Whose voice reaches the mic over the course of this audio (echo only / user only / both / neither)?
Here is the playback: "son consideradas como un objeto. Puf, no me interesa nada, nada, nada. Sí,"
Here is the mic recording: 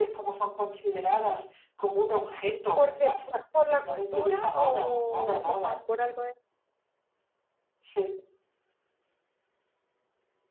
both